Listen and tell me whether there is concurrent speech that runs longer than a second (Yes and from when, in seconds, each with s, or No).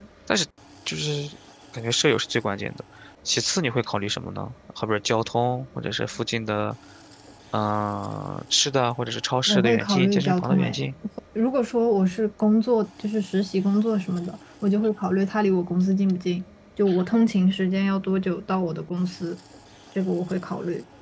Yes, from 9.5 s